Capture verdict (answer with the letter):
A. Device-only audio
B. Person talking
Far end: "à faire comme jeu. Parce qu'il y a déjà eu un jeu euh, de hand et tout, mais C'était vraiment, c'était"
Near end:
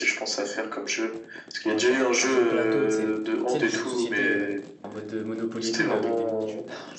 B